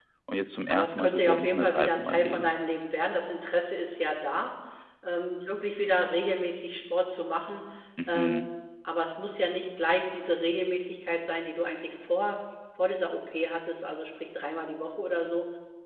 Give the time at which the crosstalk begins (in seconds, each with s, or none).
0.7 s